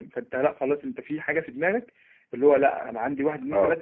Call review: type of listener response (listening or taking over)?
listening